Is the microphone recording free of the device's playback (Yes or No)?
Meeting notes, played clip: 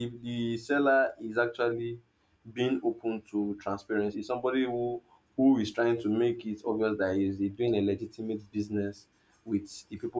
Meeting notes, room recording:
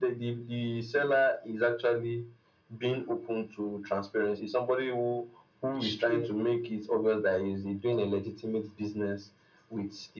No